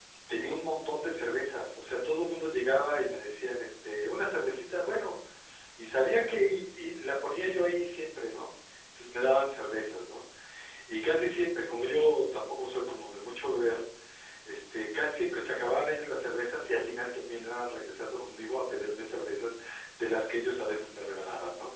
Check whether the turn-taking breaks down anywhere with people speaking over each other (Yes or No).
No